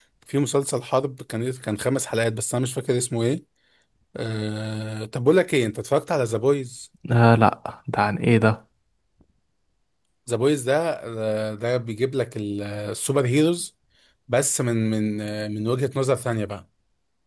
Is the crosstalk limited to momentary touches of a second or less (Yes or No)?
Yes